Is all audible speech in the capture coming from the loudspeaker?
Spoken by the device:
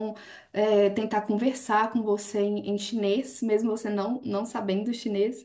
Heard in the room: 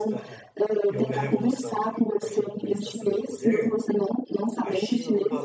No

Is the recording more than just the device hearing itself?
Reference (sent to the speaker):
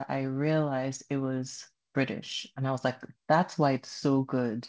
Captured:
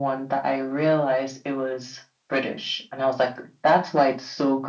No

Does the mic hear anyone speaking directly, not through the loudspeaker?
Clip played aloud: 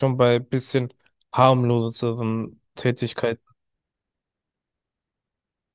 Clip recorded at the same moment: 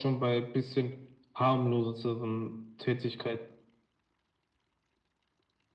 No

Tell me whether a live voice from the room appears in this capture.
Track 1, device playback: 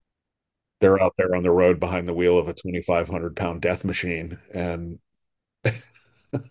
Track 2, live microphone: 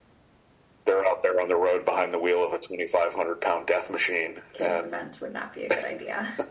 Yes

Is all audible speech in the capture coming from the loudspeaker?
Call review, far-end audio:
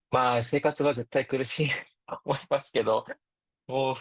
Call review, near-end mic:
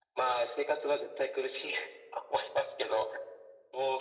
Yes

